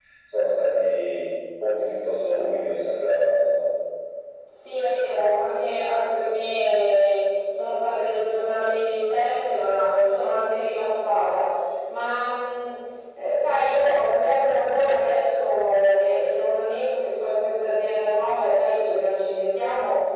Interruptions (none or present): none